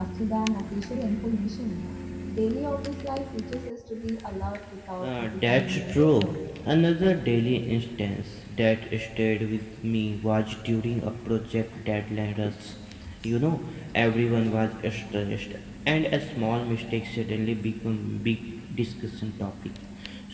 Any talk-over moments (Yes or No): Yes